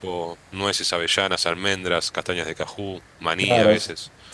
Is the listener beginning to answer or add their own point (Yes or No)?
Yes